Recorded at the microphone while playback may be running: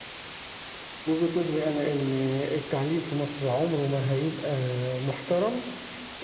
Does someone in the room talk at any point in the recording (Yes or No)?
No